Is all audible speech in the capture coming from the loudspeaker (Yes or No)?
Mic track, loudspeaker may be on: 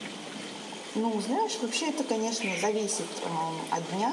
No